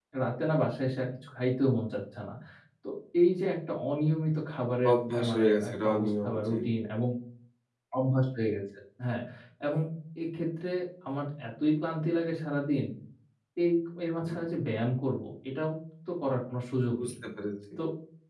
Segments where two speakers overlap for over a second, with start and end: 4.9-6.6

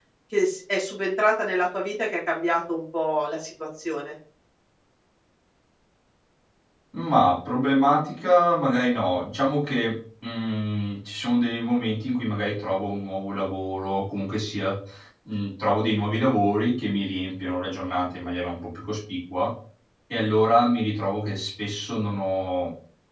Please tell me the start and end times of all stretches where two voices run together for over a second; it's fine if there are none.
none

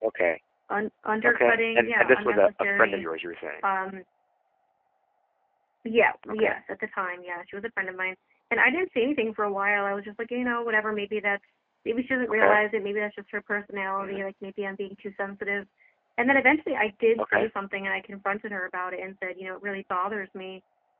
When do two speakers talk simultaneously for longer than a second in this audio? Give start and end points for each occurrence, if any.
1.2-3.0

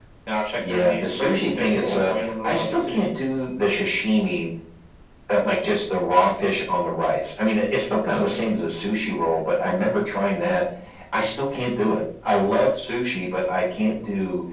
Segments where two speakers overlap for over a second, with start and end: 0.6-3.1

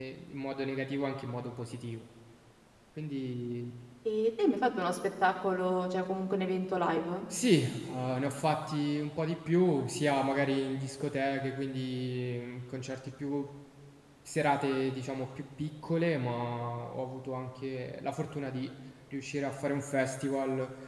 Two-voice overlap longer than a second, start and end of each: none

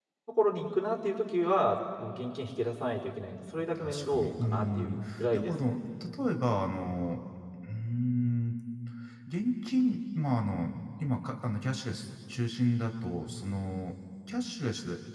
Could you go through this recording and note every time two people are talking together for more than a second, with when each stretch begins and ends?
3.8-5.5

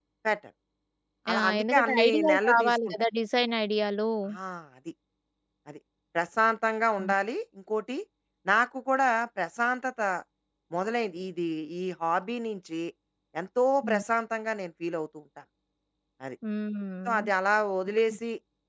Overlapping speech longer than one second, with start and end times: 1.3-3.0

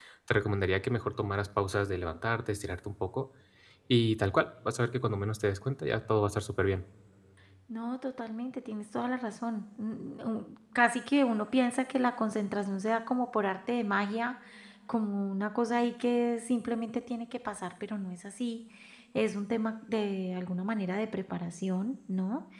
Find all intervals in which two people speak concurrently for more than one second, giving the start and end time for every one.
none

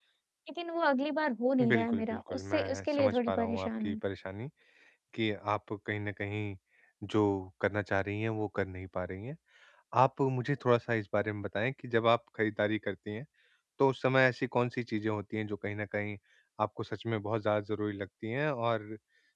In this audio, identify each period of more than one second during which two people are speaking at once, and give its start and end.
1.7-4.0

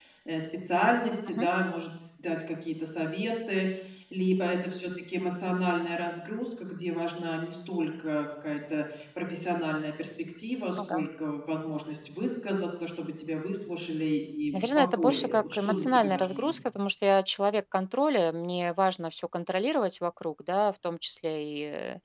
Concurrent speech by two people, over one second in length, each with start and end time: 14.5-16.6

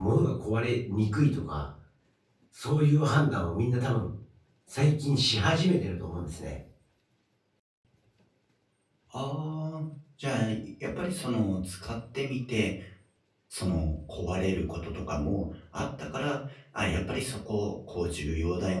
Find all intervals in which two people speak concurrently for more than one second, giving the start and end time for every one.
none

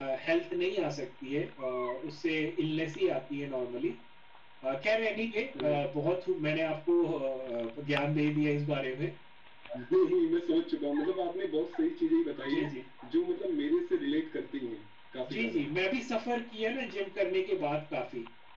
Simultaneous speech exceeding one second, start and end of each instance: none

